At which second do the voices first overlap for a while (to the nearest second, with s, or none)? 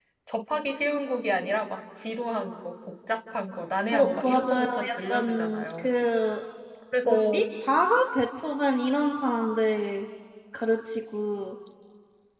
4 s